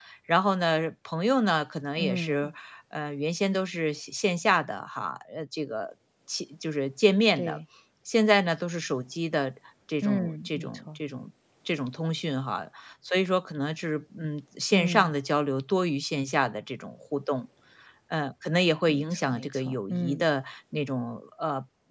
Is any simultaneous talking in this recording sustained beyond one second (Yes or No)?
Yes